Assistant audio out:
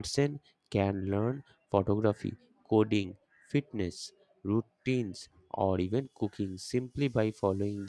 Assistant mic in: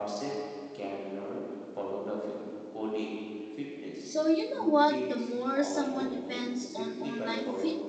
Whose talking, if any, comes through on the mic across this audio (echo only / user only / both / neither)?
both